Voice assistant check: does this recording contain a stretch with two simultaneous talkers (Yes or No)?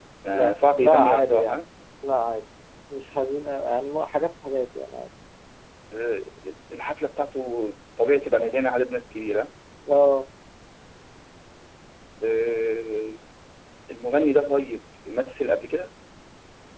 Yes